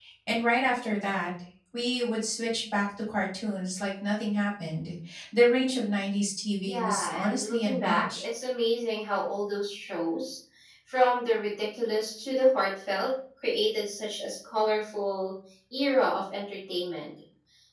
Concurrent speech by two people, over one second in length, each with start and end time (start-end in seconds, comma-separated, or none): 6.6-8.2